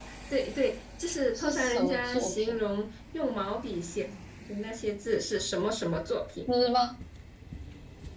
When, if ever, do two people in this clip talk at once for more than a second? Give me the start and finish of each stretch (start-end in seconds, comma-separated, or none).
1.3-2.6